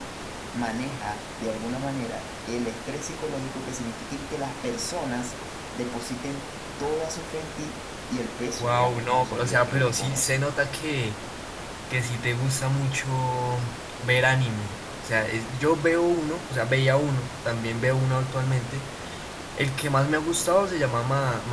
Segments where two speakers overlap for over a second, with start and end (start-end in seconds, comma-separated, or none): 8.6-10.4